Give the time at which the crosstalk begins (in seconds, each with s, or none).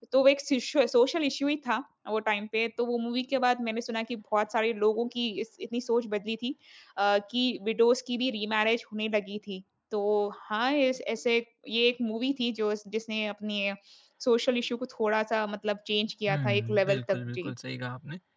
16.3 s